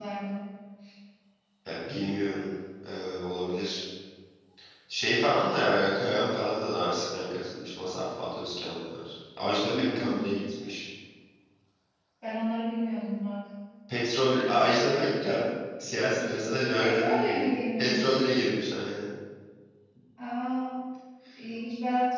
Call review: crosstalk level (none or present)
present